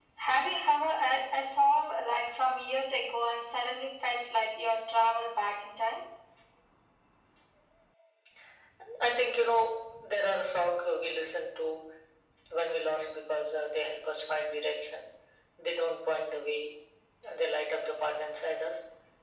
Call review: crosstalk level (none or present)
none